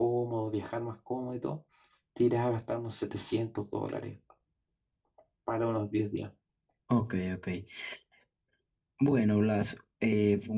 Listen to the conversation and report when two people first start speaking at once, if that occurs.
none

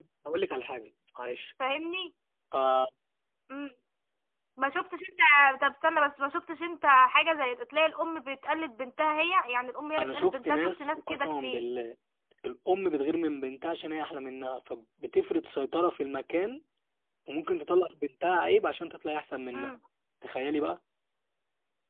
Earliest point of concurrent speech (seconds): 10 s

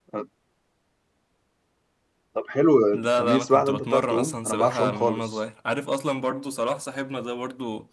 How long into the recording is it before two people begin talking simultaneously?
3 s

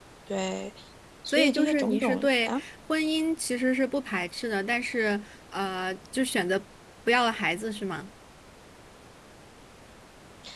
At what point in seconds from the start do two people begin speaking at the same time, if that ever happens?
1 s

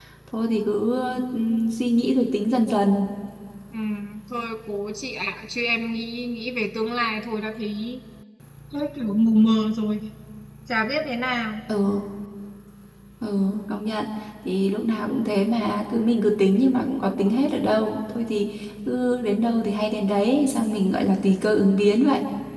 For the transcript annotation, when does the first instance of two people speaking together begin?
none

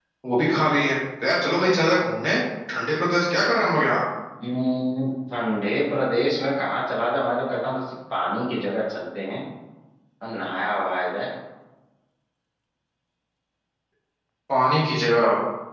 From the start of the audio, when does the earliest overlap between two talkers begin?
none

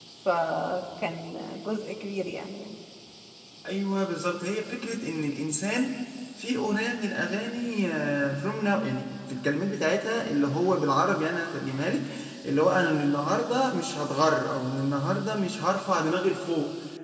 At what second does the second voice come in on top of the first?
none

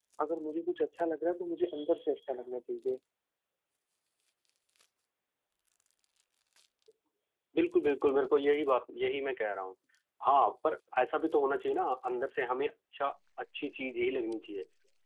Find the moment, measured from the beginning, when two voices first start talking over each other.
none

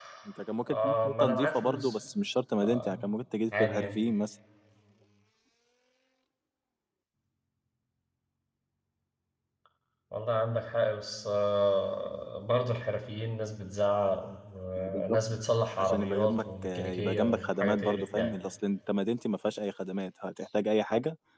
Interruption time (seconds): 1 s

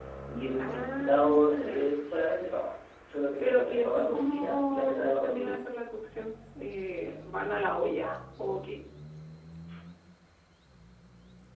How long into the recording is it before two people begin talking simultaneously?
1 s

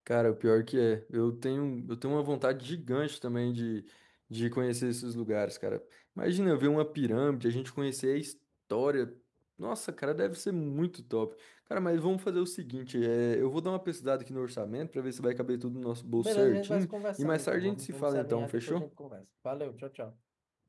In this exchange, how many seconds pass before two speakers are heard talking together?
16 s

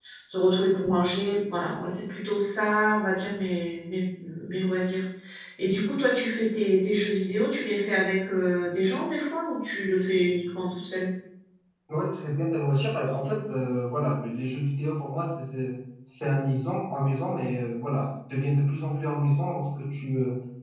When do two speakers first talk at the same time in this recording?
none

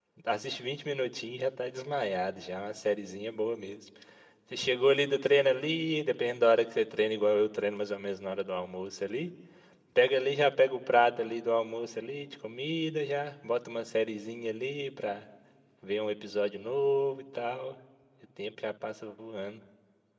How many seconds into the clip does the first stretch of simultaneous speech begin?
none

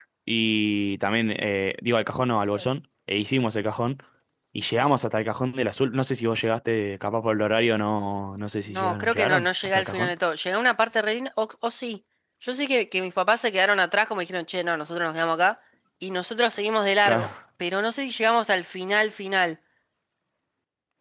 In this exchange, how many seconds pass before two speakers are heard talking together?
9 s

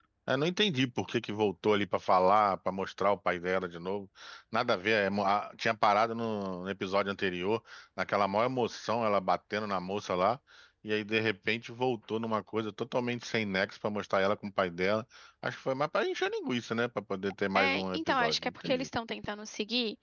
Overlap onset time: 18 s

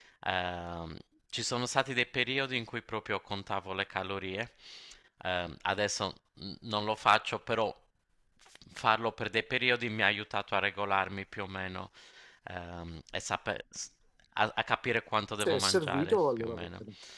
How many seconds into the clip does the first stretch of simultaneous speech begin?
15 s

